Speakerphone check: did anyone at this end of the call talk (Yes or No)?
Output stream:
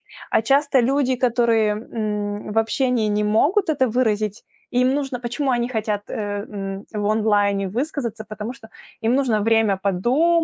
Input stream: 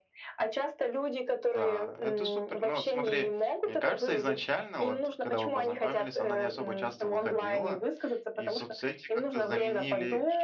Yes